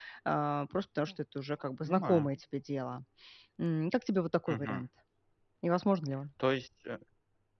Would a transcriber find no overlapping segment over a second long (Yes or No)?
Yes